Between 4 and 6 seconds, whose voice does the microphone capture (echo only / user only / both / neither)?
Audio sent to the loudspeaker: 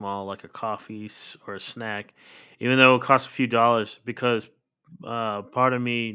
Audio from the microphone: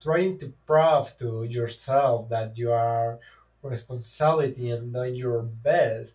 user only